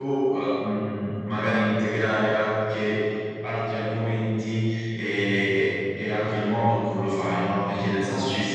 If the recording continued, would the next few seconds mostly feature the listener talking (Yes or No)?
No